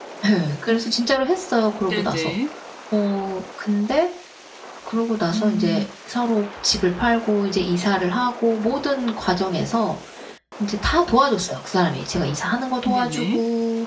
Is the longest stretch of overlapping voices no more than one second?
Yes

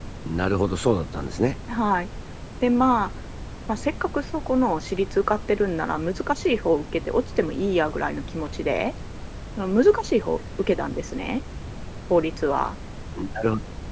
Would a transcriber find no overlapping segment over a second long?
Yes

